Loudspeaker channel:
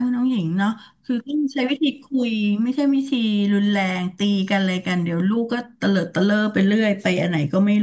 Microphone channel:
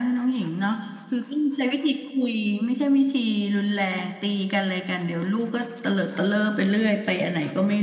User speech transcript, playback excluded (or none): none